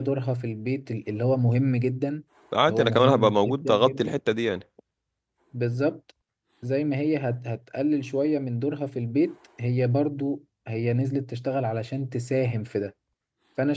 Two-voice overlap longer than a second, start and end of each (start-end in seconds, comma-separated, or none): 2.7-4.2